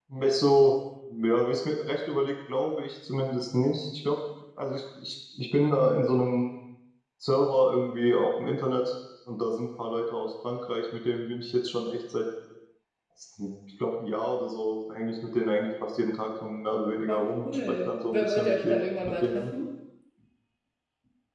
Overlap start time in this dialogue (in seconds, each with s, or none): 17.1 s